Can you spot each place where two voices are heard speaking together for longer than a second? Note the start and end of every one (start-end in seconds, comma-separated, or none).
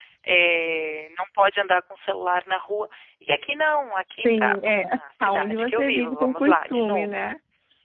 4.2-7.1